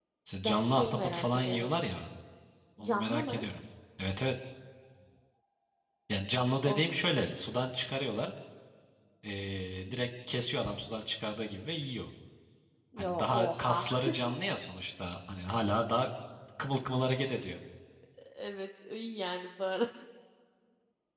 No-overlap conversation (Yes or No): No